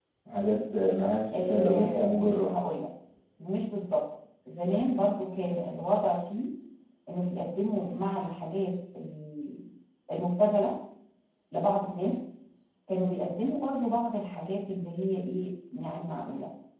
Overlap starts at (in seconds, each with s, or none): 1.3 s